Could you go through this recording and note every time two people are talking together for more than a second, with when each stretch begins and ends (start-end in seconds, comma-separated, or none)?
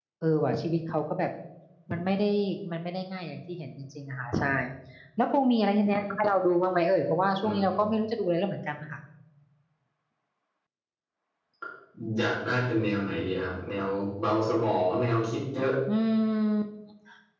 none